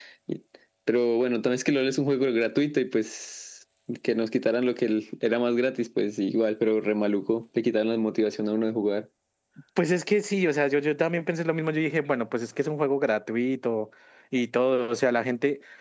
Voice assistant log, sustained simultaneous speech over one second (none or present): none